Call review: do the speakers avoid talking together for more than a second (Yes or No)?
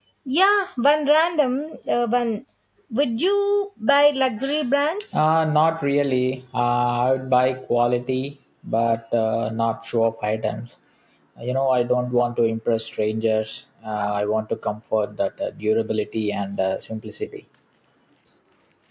Yes